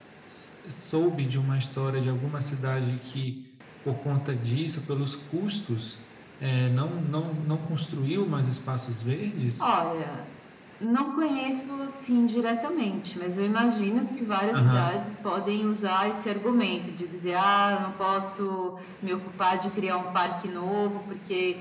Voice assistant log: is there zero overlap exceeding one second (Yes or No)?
Yes